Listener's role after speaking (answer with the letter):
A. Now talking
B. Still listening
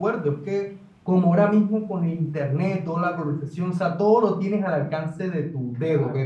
B